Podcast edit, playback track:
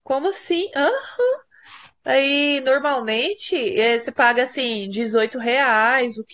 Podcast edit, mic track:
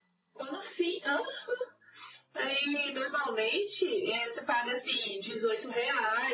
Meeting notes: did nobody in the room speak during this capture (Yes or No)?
Yes